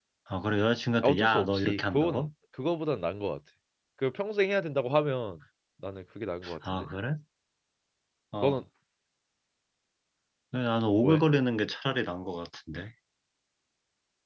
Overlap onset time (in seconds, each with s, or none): 1.0 s